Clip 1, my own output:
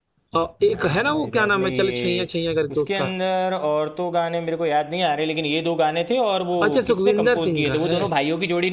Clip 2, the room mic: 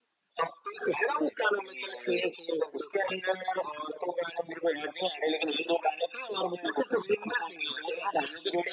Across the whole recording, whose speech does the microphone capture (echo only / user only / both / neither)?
echo only